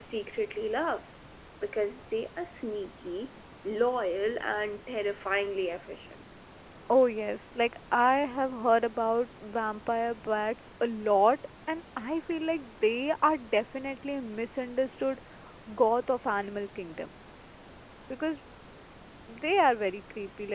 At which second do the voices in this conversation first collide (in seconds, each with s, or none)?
none